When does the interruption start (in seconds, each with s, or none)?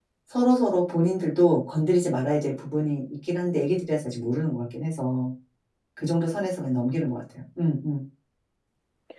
none